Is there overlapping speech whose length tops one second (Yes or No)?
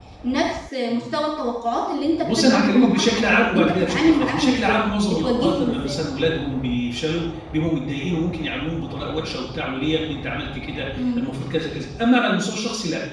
Yes